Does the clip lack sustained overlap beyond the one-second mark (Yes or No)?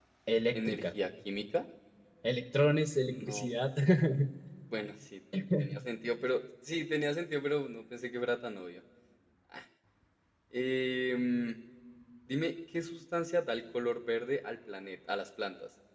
Yes